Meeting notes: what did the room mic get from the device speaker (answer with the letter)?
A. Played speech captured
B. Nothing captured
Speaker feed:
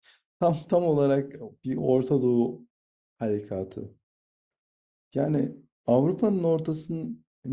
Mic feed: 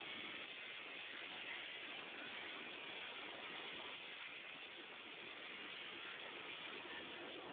B